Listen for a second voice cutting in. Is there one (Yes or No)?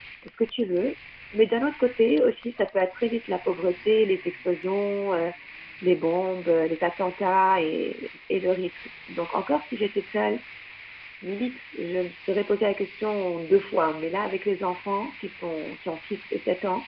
No